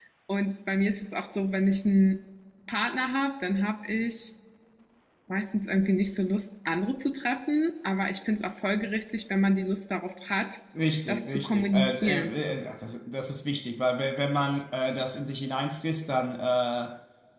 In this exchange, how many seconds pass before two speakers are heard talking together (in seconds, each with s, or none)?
11.1 s